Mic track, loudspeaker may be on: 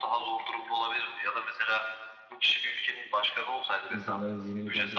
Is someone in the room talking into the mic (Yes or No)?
Yes